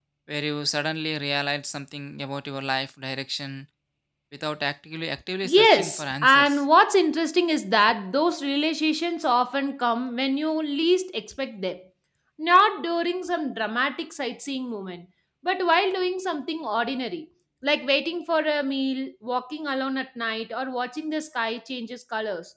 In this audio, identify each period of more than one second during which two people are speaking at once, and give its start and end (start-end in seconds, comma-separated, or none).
5.4-6.6